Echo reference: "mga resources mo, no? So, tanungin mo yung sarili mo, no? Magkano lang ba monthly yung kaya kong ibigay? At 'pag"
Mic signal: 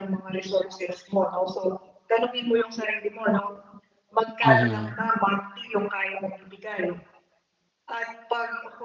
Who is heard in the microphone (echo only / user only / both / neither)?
both